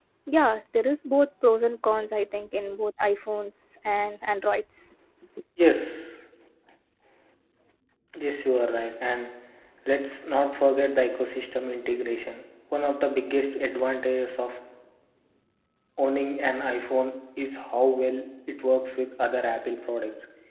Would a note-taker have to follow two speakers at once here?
No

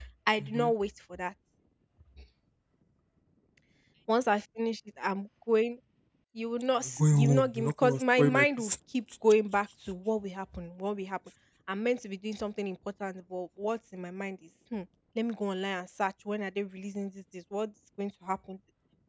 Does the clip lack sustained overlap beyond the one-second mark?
No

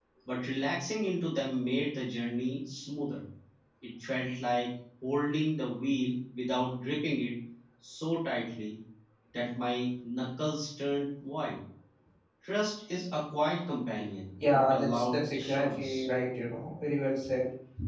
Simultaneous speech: Yes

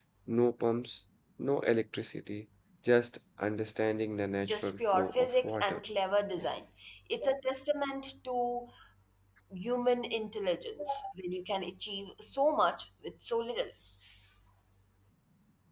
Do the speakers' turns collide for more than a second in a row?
Yes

